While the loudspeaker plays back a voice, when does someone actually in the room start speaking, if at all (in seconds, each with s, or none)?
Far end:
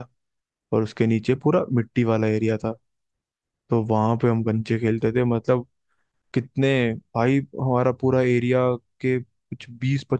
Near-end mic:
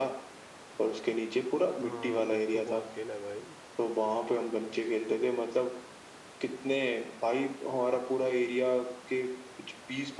1.8 s